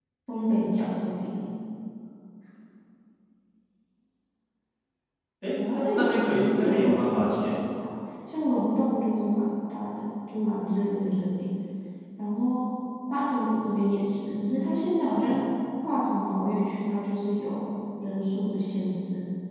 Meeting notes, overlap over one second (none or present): present